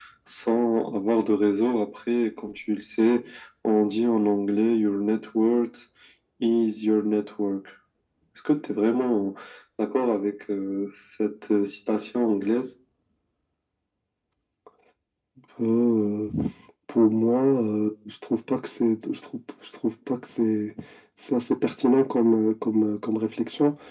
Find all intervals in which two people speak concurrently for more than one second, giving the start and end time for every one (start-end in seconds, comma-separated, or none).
none